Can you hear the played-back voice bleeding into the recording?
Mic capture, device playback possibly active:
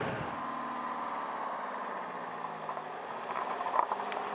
No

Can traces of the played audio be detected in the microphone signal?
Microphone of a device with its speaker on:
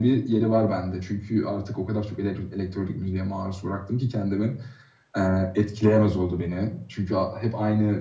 Yes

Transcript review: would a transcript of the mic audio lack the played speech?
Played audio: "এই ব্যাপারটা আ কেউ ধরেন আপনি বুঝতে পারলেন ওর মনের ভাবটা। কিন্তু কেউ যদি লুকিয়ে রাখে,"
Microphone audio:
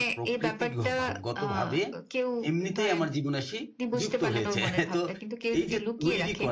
No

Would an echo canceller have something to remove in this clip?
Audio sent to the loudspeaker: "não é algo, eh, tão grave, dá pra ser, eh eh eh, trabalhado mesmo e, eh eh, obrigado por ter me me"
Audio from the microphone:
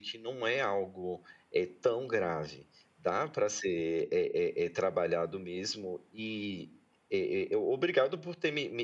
Yes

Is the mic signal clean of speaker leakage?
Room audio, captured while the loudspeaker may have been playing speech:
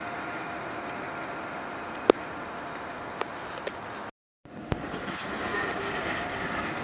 Yes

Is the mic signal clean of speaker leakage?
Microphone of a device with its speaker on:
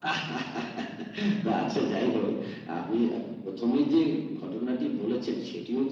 No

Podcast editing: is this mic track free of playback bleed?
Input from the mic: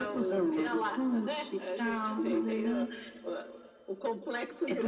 No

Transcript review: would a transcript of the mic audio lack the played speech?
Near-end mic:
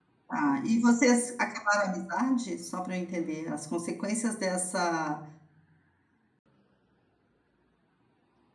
Yes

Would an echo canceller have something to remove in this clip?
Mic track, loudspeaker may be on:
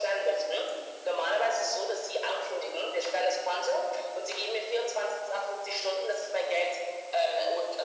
Yes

